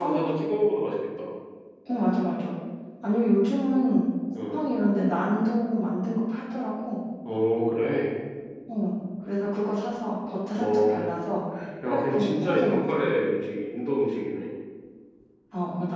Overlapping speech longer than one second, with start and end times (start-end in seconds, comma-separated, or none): 11.8-13.1